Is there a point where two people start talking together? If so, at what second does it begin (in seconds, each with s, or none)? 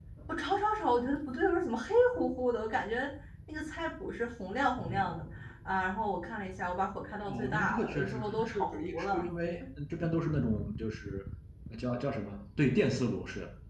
7.2 s